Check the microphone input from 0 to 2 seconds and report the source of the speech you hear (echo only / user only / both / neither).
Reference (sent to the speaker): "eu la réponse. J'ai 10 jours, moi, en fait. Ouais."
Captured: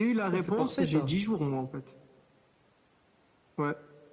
both